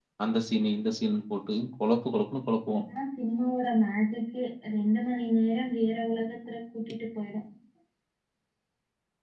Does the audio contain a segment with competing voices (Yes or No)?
No